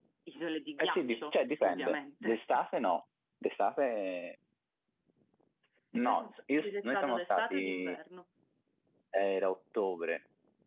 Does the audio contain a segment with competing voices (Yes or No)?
Yes